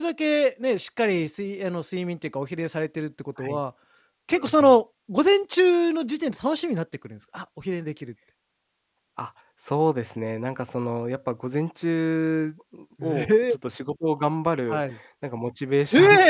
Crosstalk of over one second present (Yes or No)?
No